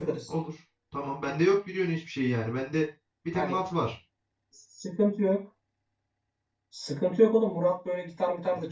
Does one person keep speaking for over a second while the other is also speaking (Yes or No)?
No